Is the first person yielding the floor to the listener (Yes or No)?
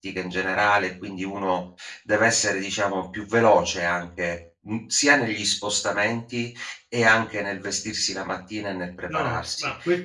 Yes